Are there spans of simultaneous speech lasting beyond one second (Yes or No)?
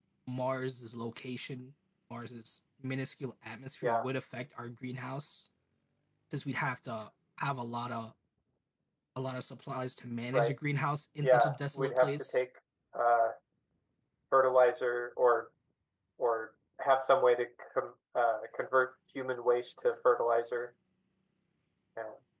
Yes